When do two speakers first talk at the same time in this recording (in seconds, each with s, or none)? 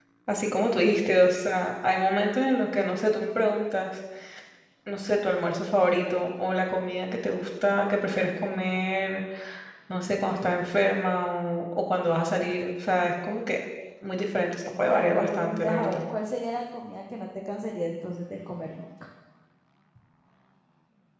14.8 s